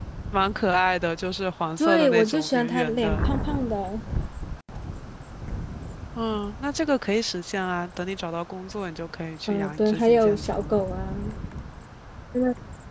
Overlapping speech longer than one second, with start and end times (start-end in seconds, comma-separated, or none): 1.8-3.3, 9.5-10.8